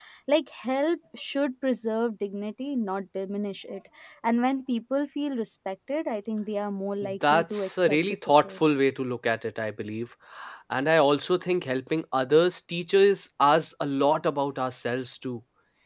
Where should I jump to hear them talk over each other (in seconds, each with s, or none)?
7.0 s